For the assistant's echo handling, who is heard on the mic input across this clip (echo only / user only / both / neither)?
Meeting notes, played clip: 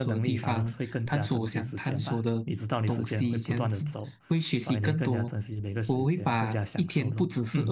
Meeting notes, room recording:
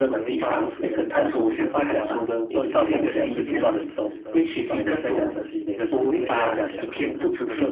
both